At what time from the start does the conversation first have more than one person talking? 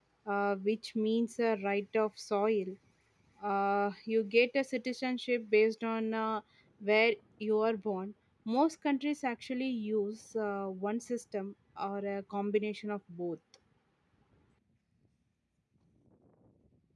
none

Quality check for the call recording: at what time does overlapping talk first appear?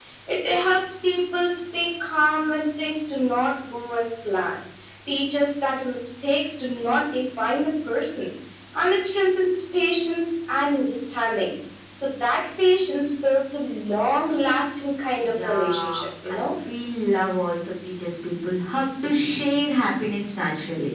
15.2 s

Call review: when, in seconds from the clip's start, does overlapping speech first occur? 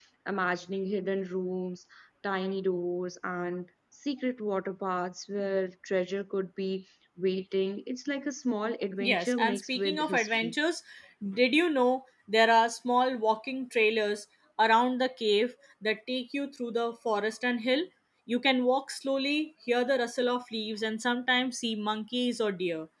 9.0 s

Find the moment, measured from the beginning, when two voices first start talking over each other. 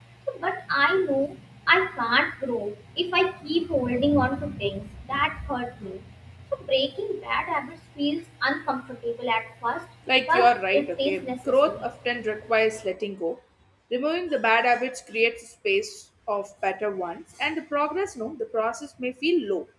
10.2 s

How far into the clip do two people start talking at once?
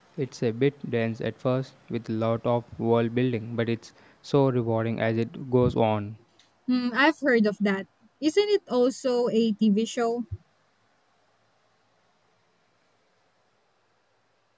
none

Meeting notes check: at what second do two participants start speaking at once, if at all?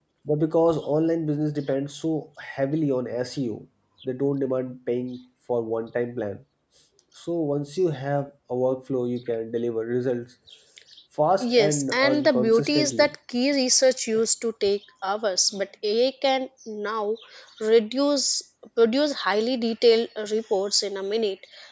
11.4 s

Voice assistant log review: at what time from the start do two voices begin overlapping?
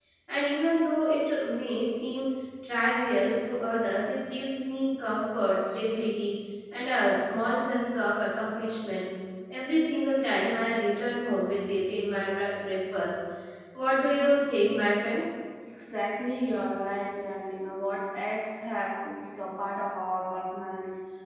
none

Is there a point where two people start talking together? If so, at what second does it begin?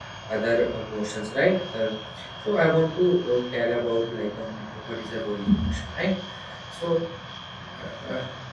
none

